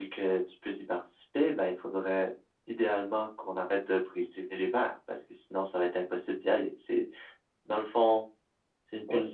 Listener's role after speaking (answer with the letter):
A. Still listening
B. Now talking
A